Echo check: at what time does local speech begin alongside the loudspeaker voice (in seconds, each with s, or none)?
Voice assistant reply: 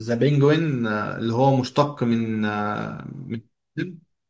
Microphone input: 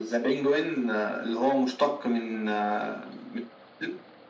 none